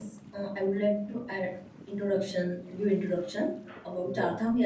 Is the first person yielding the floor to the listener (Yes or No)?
No